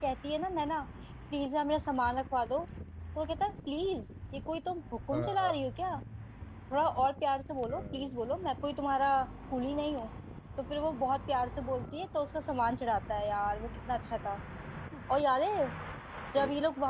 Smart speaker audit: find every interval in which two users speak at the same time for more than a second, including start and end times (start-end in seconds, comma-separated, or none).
none